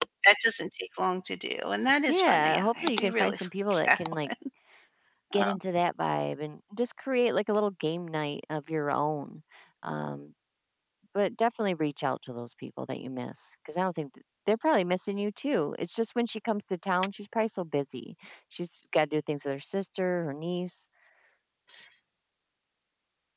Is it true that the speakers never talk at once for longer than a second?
No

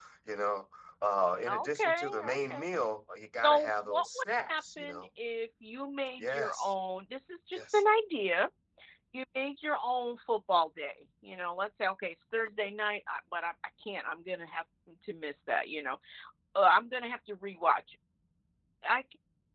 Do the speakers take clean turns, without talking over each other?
No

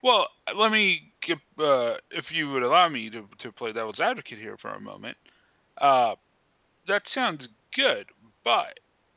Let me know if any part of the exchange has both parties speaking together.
No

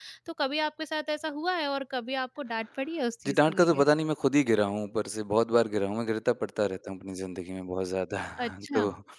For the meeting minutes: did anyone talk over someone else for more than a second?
No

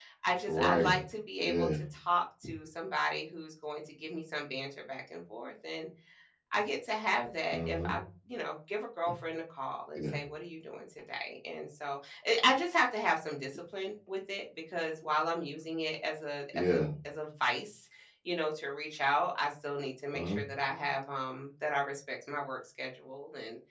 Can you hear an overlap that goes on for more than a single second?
No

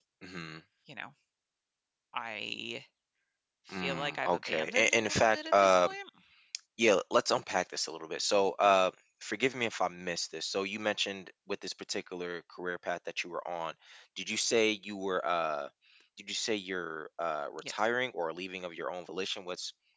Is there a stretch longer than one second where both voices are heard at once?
Yes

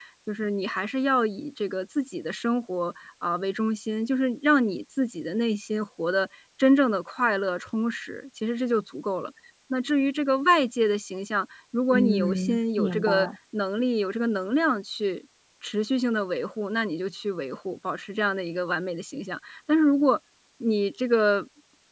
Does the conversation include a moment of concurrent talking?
Yes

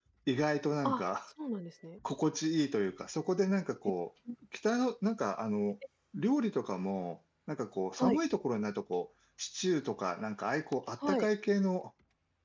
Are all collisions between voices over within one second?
Yes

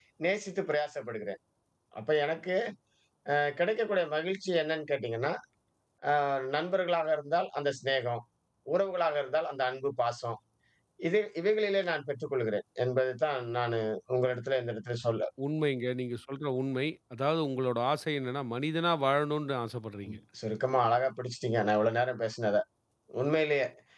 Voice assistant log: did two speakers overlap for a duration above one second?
No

